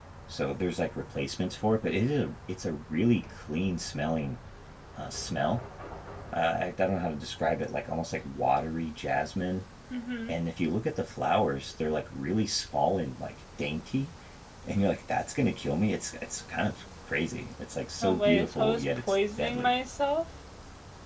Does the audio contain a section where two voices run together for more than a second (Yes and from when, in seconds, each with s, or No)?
Yes, from 18.0 s